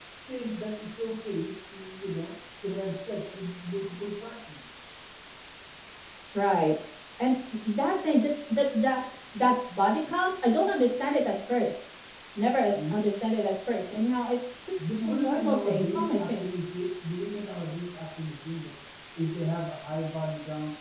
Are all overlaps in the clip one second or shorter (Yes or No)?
No